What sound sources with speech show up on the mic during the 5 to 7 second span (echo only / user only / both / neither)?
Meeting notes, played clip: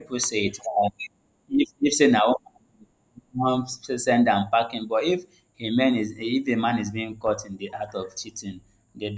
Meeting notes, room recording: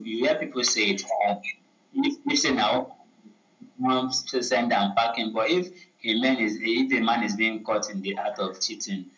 echo only